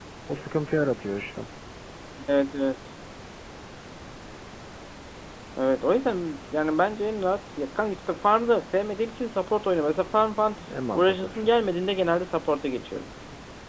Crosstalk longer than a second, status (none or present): none